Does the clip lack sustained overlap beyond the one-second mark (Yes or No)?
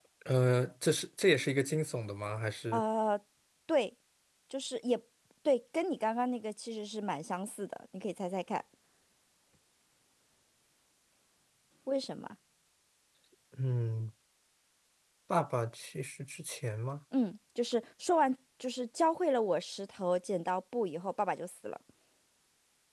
Yes